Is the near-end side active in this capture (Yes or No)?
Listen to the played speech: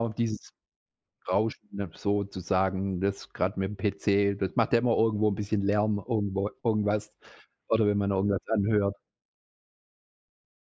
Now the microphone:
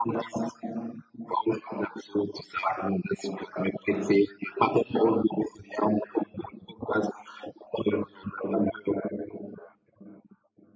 No